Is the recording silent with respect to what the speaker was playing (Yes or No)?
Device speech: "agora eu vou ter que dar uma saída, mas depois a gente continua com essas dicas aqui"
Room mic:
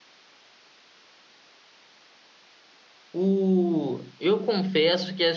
Yes